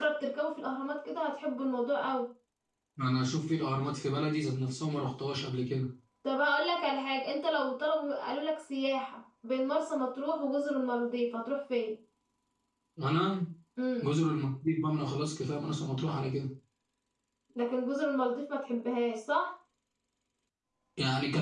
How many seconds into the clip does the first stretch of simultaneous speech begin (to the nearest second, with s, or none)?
none